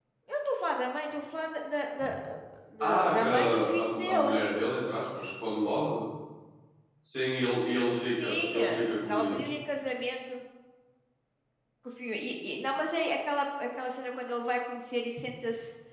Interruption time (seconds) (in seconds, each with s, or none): 2.8 s